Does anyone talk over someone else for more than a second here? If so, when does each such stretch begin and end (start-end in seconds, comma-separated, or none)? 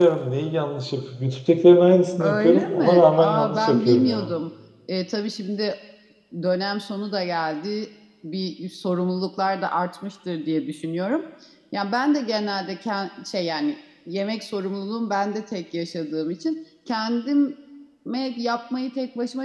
2.2-4.3